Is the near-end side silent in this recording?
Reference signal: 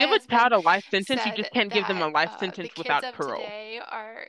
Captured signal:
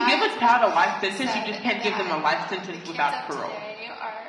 Yes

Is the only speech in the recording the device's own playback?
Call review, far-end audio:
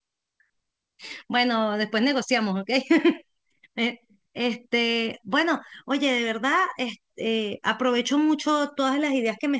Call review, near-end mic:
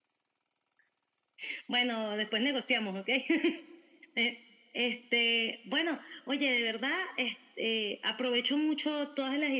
Yes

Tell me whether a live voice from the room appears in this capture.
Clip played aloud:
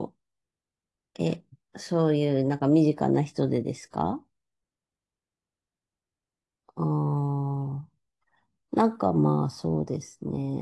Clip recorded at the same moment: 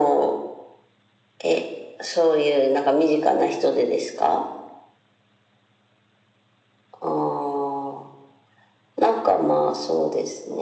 No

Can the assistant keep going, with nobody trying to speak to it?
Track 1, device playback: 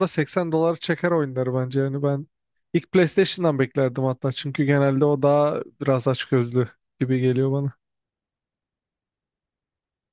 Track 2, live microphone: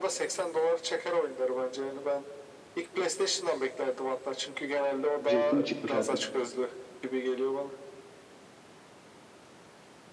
No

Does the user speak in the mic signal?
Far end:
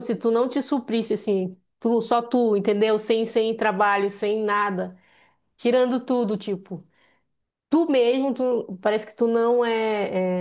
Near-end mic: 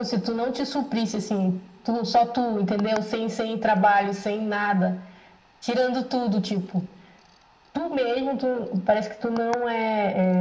No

